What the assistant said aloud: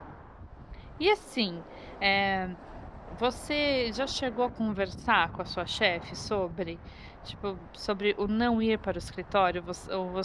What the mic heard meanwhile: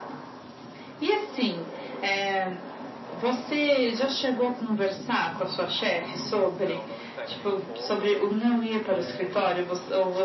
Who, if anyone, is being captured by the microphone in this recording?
both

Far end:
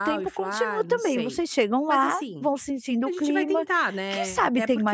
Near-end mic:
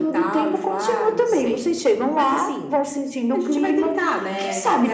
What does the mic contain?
echo only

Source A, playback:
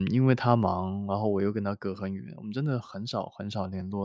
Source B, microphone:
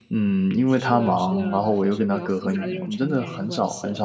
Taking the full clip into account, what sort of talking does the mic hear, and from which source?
both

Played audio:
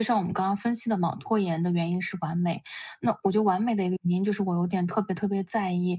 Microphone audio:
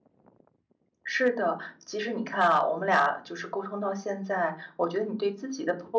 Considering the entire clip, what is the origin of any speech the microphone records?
user only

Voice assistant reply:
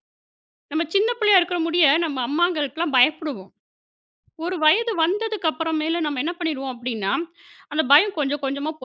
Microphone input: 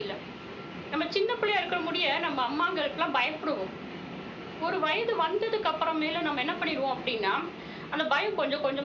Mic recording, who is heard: echo only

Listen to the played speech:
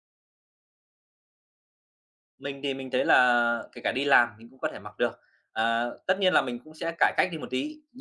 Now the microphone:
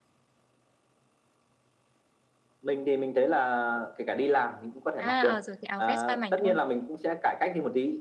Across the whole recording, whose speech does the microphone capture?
both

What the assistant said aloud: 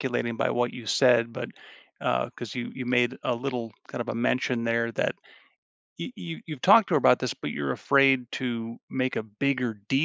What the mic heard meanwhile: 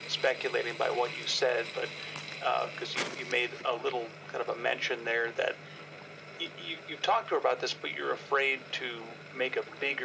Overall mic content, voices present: echo only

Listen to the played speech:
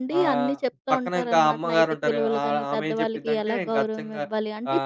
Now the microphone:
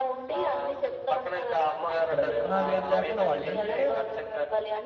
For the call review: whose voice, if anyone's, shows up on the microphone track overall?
both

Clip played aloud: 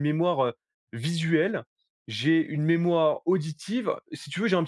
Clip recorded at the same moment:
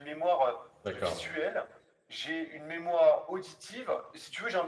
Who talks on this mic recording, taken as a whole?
both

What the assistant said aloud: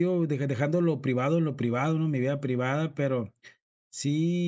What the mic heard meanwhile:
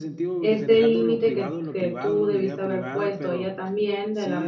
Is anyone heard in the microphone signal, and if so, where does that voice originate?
both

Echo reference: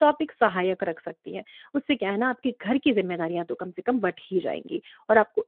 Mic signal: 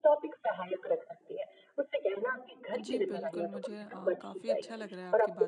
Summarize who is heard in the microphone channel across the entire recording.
both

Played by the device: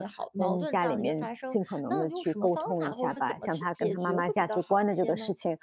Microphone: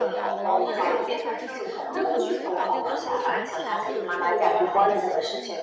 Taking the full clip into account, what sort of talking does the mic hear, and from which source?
both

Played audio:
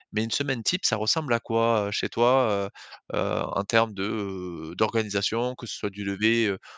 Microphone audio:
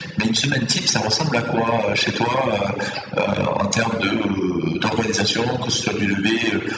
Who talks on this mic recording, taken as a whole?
echo only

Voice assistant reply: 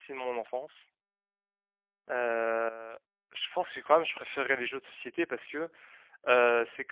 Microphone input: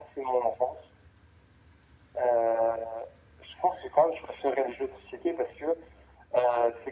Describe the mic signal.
echo only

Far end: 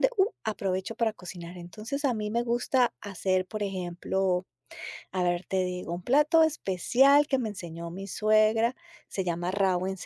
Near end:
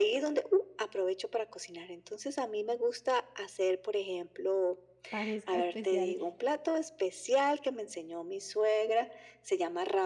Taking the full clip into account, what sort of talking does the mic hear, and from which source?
both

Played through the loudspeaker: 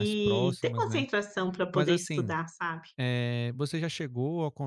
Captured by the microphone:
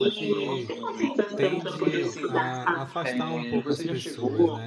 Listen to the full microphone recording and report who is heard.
both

